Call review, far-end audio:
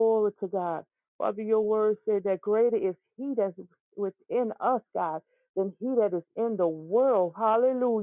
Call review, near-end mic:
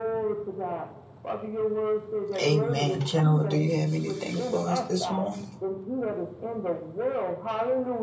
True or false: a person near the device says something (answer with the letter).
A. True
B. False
A